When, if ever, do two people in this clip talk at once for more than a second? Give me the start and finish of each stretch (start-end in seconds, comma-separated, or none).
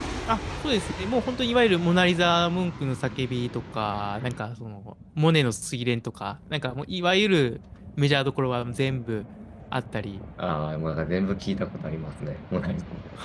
none